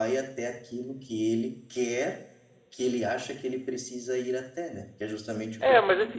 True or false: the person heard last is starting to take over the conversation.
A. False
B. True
B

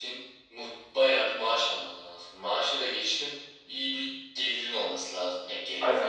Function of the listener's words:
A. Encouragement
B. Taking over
B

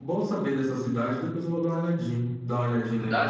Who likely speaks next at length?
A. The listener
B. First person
B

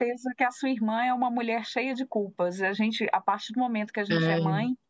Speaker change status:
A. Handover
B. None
B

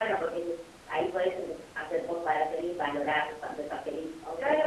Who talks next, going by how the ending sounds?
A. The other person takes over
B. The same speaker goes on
A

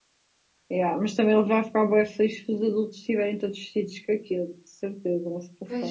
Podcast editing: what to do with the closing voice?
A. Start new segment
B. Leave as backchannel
A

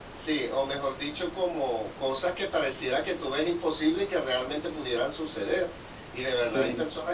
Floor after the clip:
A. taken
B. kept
B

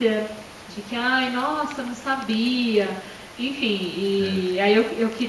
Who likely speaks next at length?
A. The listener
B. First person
B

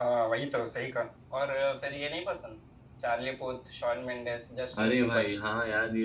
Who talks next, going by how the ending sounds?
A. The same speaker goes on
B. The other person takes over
B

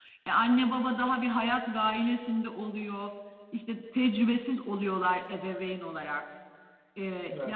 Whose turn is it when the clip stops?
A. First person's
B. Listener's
A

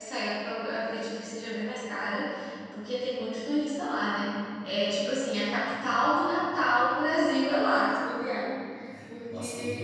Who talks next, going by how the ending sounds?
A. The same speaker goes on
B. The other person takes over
B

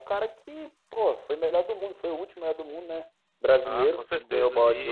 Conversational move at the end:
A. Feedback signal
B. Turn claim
B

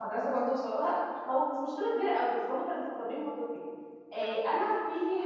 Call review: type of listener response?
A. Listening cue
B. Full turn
A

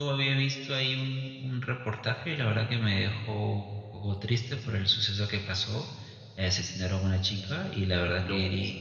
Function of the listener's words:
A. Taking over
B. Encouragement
B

